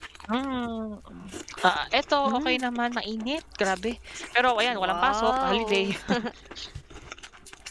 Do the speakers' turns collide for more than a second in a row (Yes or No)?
Yes